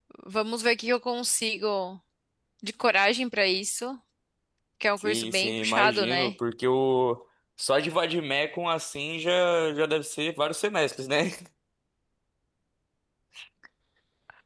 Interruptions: present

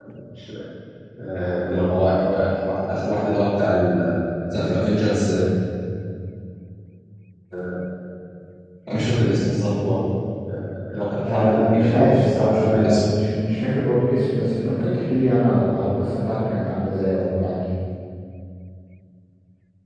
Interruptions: present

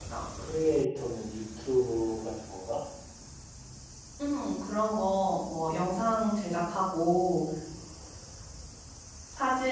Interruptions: none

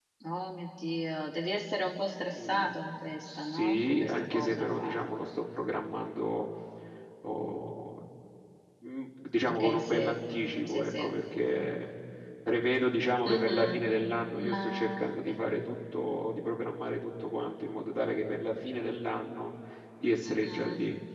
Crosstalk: present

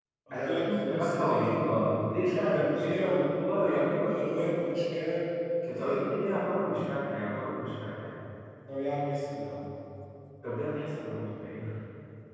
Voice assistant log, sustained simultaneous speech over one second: present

